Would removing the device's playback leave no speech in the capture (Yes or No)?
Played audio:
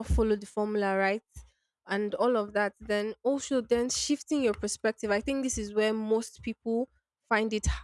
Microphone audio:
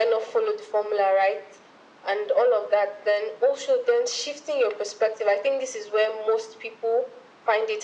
Yes